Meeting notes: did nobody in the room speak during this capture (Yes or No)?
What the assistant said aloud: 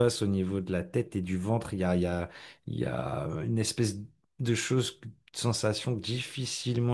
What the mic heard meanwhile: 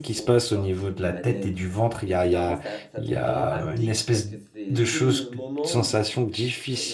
No